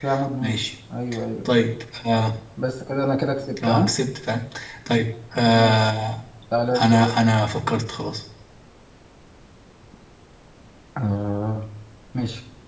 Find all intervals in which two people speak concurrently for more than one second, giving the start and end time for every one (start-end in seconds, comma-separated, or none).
none